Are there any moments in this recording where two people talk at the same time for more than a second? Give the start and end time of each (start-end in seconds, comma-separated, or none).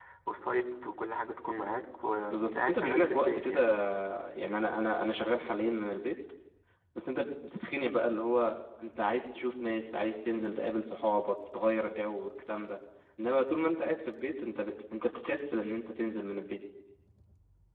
2.3-3.6